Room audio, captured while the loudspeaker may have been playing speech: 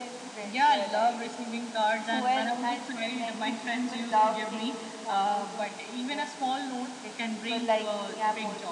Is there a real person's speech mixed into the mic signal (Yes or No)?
No